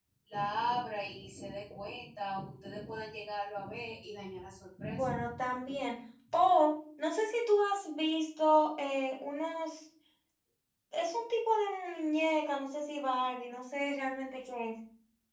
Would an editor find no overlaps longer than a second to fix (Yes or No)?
Yes